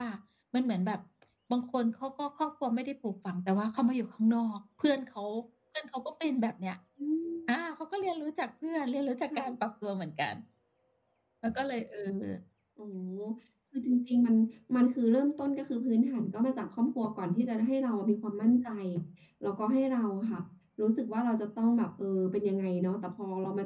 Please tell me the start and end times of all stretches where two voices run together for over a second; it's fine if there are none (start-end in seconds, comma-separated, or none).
none